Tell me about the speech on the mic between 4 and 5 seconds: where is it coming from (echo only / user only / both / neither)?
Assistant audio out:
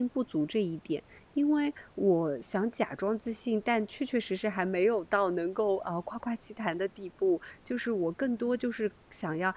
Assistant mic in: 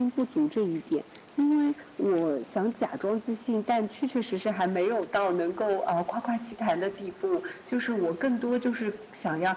echo only